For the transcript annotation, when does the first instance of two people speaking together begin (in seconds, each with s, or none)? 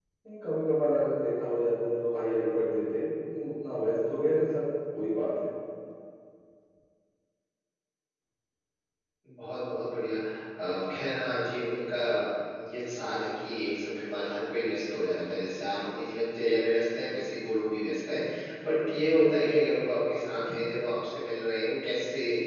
none